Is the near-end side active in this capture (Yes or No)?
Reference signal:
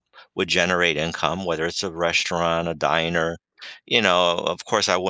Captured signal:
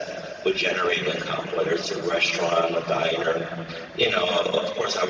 No